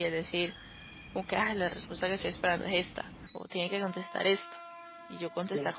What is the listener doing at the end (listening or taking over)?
listening